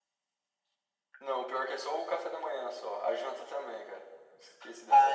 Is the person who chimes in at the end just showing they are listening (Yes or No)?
No